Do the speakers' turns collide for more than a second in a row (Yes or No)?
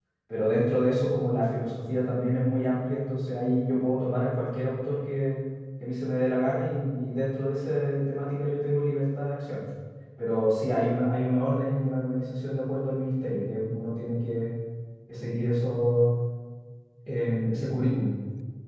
No